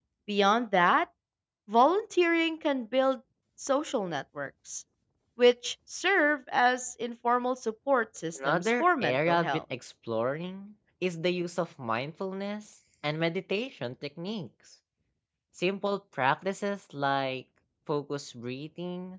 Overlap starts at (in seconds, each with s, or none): 8.4 s